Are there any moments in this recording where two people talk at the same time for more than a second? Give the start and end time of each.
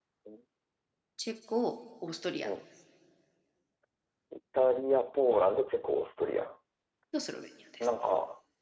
none

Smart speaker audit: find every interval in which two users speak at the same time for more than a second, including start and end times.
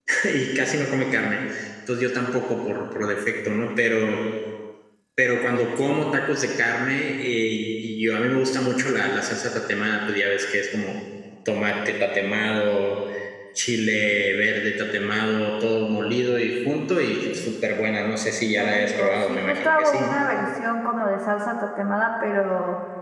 18.6-20.1

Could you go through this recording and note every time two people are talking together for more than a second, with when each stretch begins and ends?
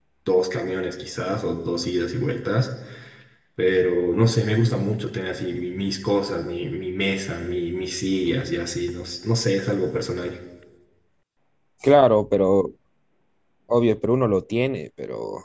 none

